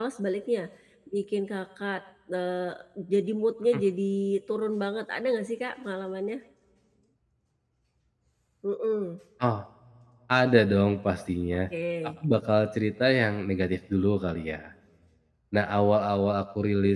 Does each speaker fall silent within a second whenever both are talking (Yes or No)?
Yes